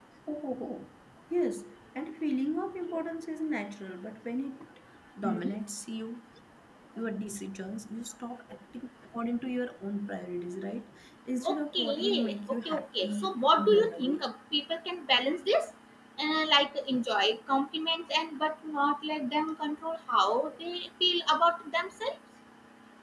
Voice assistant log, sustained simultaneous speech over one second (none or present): present